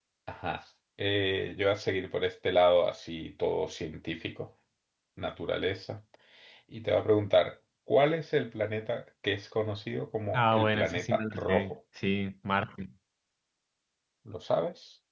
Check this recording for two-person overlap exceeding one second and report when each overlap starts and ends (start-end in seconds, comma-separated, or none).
10.3-11.7